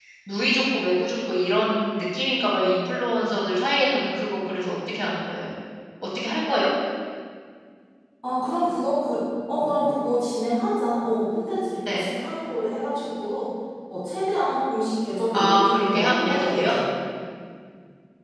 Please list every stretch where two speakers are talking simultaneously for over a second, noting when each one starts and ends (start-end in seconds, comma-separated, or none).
15.3-16.7